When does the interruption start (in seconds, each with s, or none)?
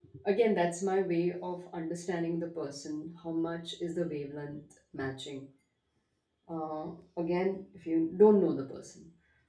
none